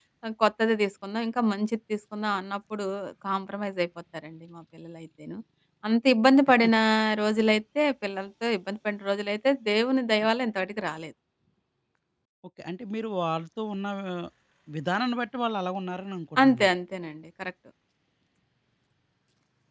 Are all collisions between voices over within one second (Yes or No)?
Yes